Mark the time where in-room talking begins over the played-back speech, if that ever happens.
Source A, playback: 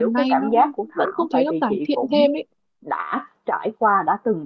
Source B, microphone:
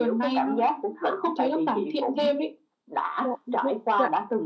3.2 s

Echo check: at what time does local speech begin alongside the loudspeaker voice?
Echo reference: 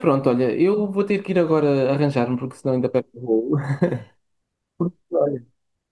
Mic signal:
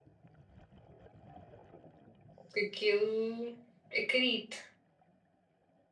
2.5 s

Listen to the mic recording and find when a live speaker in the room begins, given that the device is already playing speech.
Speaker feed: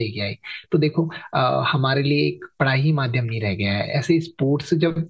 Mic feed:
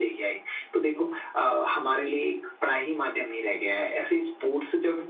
none

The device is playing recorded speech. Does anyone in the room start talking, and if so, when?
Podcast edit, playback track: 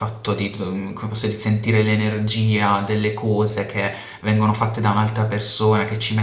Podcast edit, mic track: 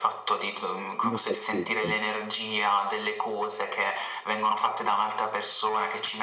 1.1 s

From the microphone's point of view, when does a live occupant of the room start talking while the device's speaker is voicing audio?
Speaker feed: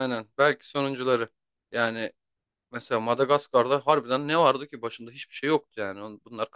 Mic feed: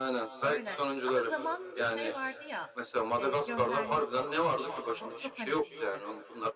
0.4 s

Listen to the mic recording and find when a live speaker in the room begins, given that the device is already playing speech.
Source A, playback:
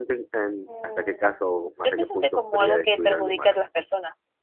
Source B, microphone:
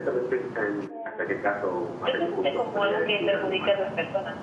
none

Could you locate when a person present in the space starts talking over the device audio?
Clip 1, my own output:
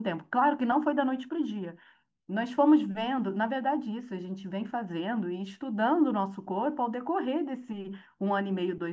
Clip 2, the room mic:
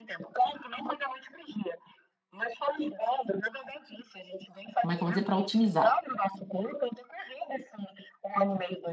4.8 s

